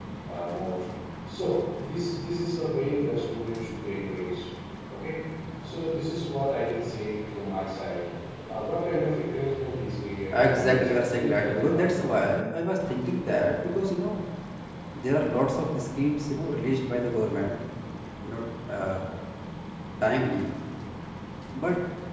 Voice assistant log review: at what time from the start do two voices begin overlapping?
10.3 s

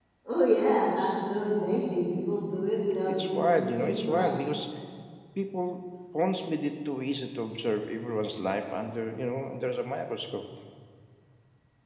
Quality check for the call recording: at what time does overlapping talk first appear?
3.0 s

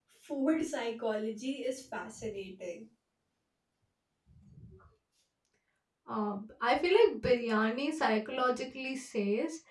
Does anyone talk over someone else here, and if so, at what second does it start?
none

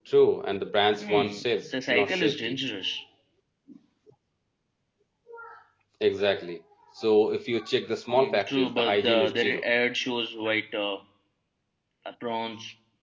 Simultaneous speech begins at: 1.0 s

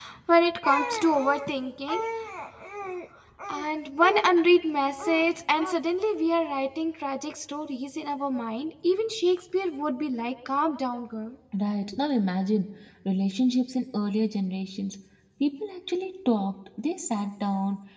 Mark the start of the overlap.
none

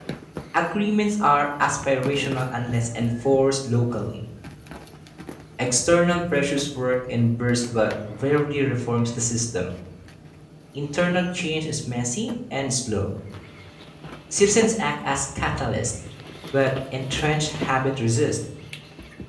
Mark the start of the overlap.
none

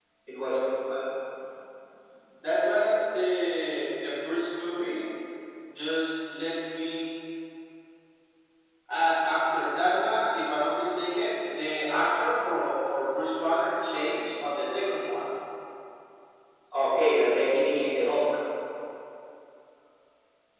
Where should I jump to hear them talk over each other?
none

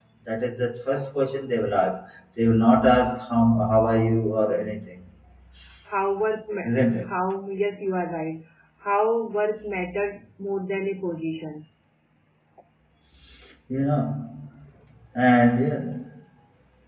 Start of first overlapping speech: none

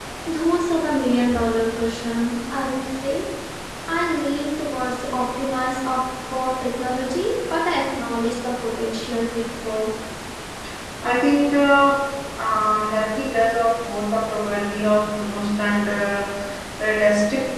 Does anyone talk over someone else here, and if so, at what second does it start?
none

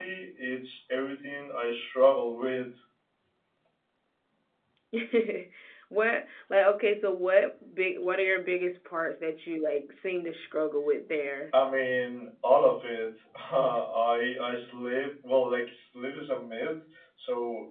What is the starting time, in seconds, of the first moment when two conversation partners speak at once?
none

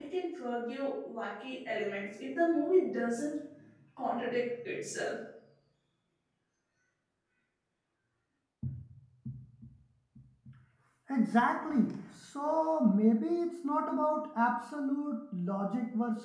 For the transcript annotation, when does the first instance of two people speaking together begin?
none

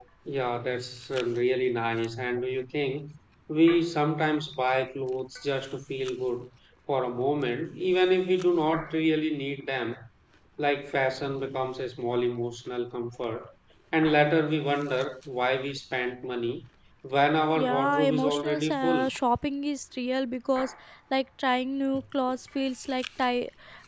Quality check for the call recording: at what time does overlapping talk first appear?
17.6 s

